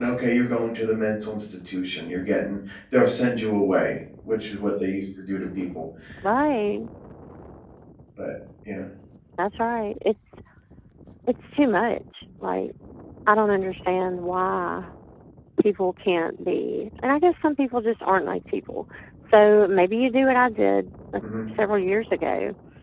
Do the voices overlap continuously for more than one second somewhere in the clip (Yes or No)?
No